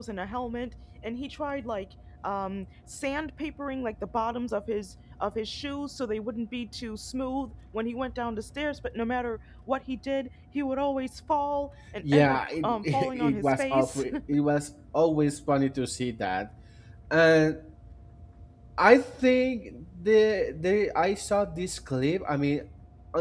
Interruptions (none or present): present